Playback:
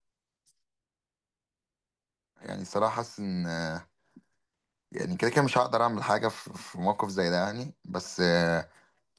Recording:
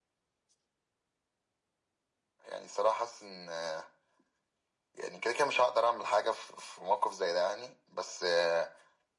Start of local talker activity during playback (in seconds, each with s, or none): none